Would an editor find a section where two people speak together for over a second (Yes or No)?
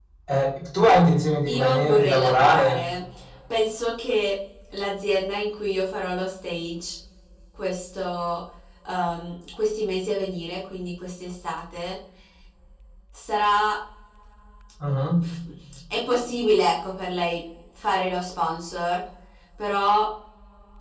Yes